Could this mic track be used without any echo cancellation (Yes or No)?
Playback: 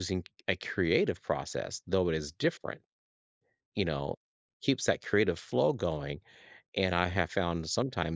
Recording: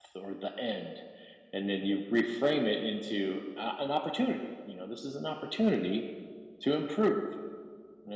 Yes